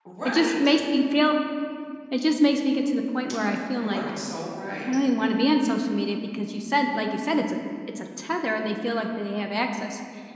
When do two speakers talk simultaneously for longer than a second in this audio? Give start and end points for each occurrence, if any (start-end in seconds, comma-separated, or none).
none